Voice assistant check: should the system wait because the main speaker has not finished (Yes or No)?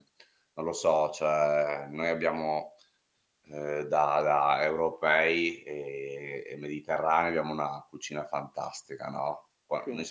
Yes